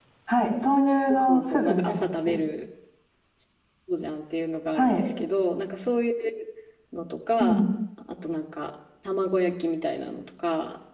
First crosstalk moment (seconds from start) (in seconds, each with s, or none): 1.1 s